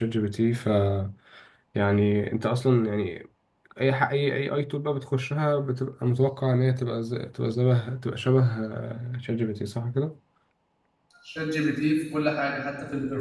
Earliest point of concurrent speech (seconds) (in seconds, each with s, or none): none